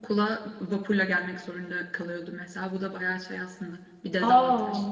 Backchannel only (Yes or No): No